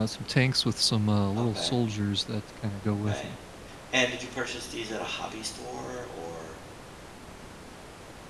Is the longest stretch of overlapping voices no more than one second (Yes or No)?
Yes